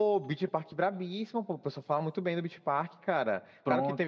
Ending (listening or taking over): listening